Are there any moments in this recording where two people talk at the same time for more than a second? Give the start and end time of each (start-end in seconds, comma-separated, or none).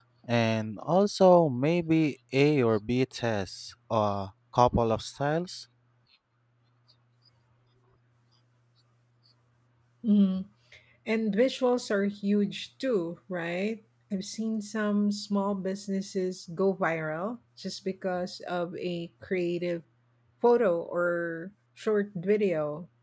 none